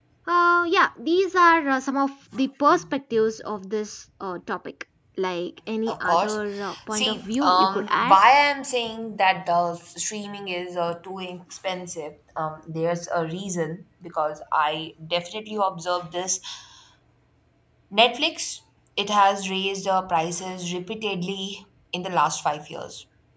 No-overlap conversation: No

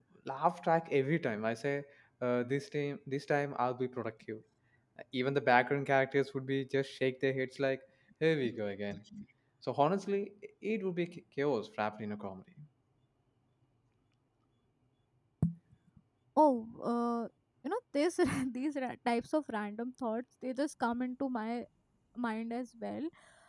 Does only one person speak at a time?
Yes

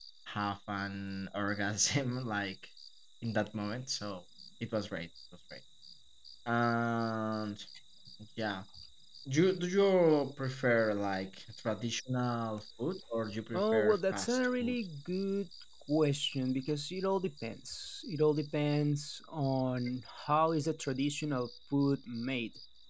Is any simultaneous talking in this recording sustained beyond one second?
Yes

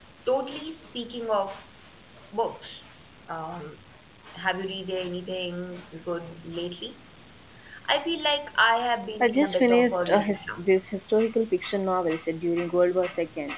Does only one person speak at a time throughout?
No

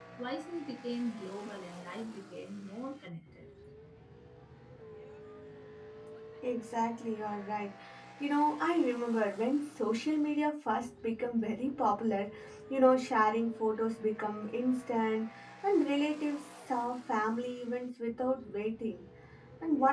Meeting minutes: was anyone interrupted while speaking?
No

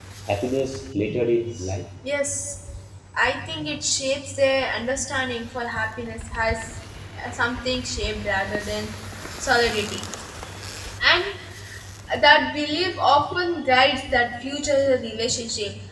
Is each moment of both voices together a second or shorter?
Yes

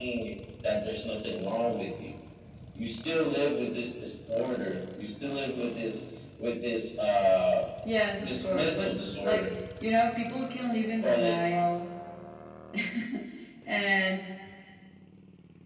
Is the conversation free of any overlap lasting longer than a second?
No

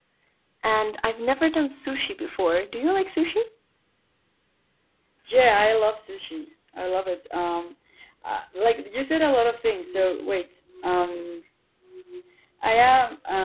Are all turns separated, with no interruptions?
Yes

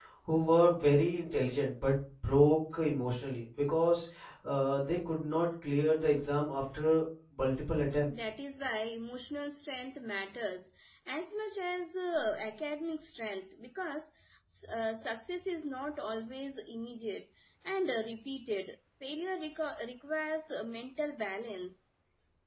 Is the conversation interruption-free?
Yes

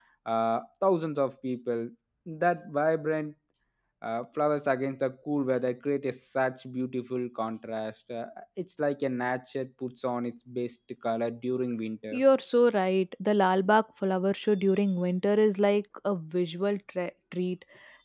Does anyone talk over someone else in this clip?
No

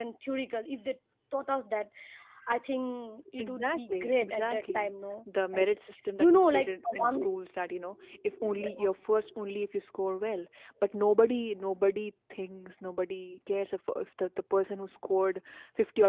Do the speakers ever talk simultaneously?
Yes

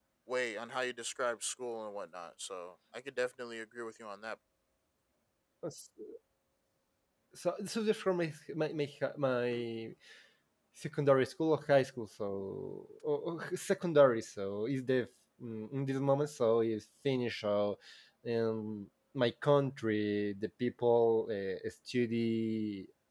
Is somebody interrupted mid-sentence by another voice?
No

